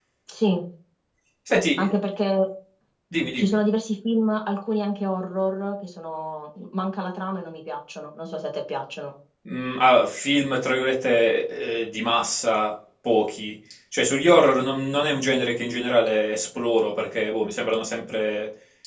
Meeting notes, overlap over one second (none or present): none